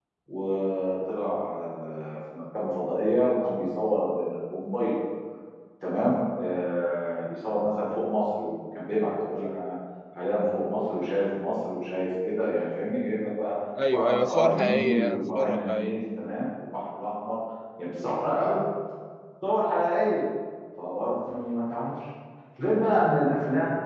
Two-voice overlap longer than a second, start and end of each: 13.9-16.0

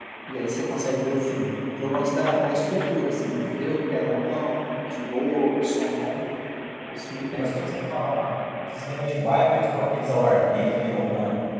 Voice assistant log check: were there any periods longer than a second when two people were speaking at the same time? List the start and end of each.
none

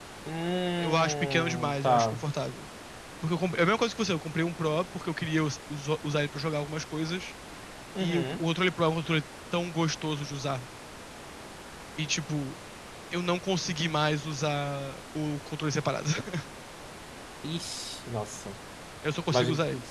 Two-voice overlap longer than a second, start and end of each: 0.8-2.2

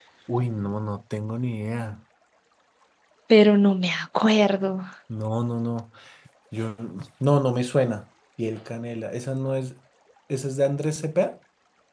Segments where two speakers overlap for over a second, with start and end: none

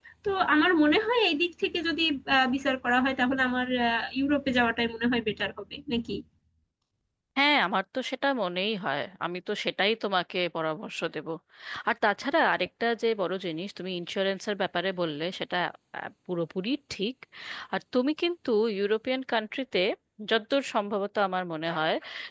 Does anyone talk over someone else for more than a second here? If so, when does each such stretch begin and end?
none

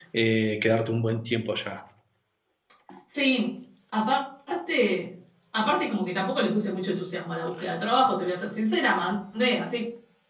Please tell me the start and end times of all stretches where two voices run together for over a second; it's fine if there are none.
none

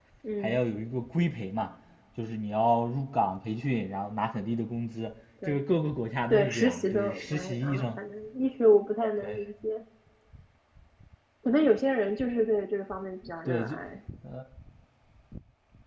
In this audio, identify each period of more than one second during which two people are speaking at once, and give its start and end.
6.3-7.9

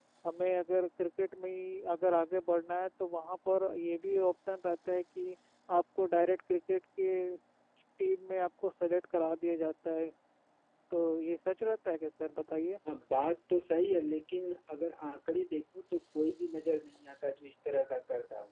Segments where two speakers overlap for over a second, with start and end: none

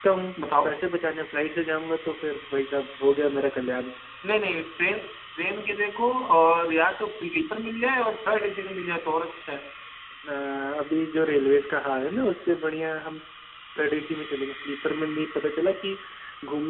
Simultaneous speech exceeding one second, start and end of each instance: none

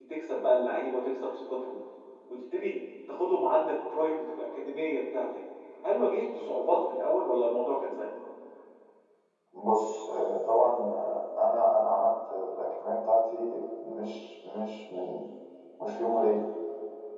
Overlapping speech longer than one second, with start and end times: none

